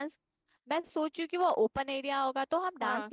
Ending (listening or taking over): listening